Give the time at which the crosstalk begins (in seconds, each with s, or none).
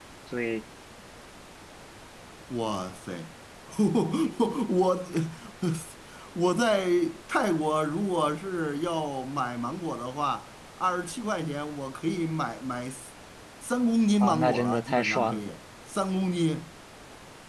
14.2 s